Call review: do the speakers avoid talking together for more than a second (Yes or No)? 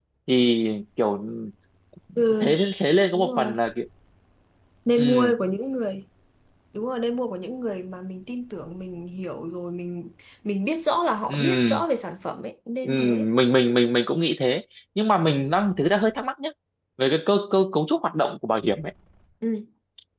Yes